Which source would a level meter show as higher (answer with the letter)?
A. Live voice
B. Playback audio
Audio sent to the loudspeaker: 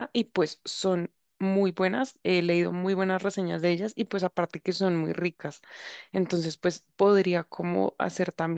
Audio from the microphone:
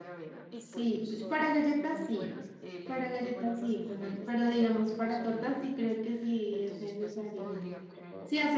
A